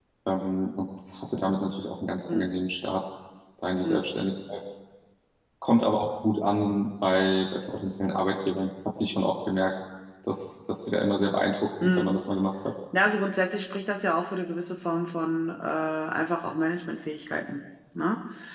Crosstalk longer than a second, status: none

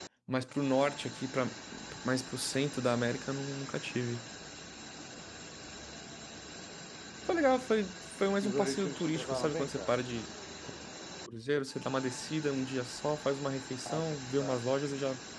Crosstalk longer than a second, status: present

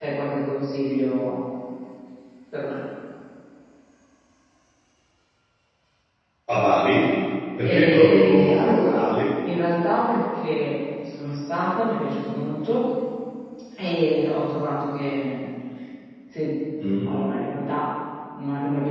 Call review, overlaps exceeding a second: present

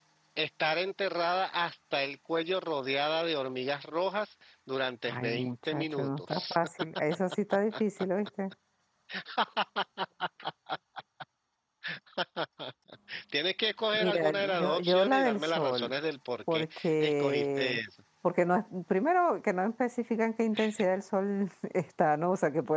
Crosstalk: present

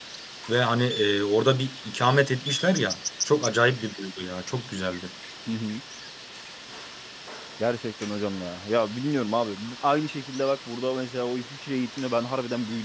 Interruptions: none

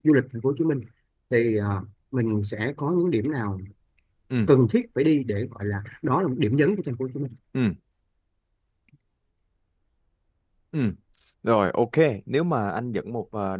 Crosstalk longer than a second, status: none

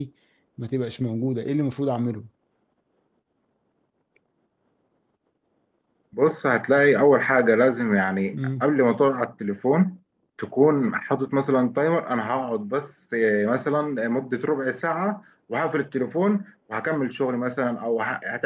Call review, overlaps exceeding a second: none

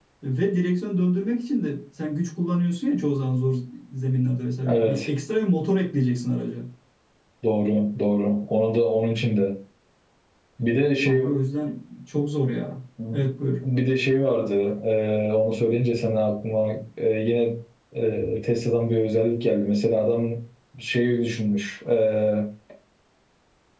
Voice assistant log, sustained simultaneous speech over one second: none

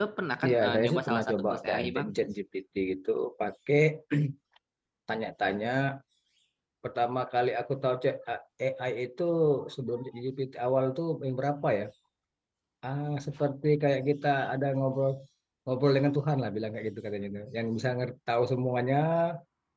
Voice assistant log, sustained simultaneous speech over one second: present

